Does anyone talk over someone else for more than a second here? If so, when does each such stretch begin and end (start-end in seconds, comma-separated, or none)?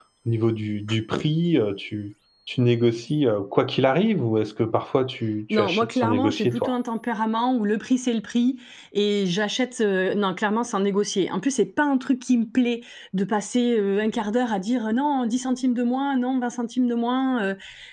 5.5-6.7